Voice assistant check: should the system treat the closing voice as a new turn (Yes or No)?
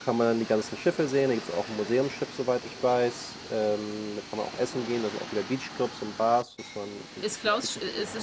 Yes